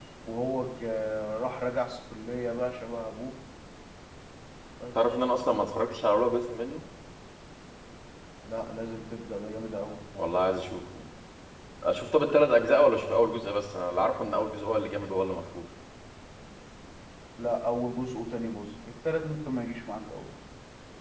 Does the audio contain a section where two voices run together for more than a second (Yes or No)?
No